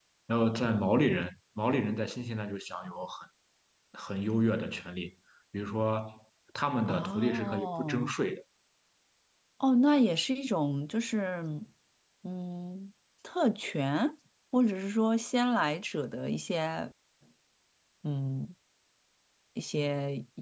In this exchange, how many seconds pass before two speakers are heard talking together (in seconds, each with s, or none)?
6.9 s